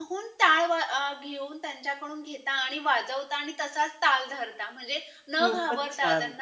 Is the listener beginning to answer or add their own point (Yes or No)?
No